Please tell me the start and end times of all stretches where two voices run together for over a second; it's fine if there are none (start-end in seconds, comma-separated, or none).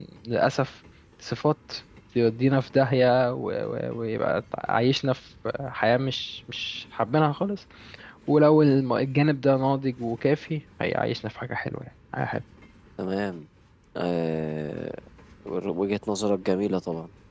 none